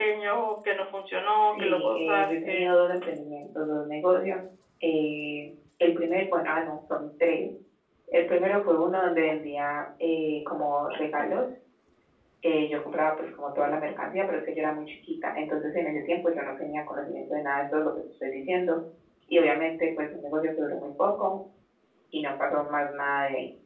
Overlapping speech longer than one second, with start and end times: 1.3-2.7

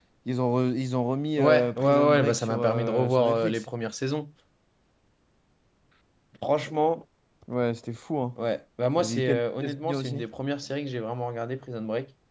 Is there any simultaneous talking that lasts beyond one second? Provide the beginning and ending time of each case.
1.4-3.6, 9.0-10.2

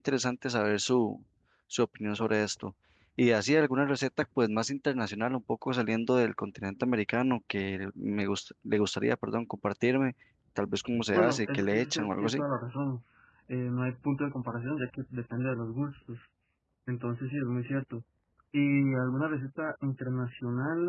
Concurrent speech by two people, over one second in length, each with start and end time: 11.1-12.4

